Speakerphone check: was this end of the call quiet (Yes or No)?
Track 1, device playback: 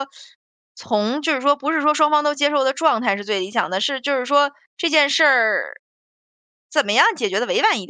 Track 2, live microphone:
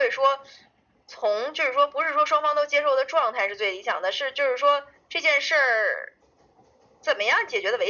Yes